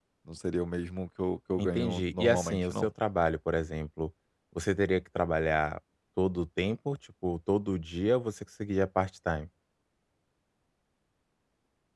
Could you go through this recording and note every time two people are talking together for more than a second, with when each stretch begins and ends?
1.6-2.9

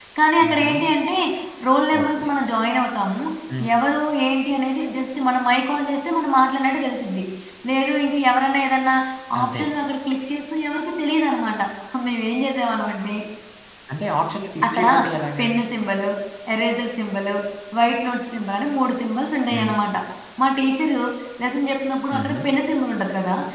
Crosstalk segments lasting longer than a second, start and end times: none

